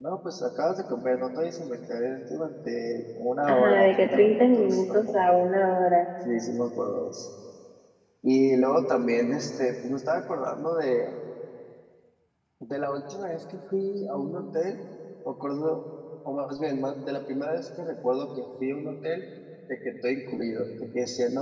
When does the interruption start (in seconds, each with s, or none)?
3.5 s